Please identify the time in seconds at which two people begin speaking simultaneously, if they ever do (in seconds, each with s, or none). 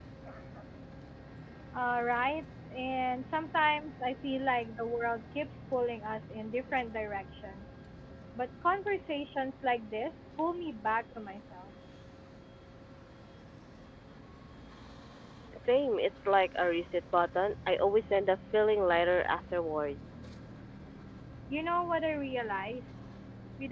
none